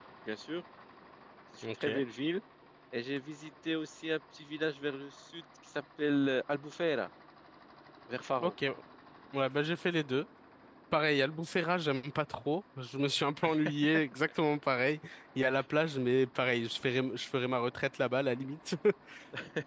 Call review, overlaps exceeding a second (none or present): none